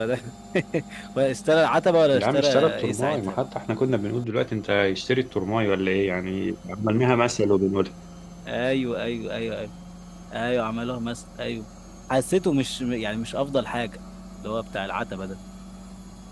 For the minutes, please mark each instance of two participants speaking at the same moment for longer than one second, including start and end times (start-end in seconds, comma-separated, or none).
2.1-3.4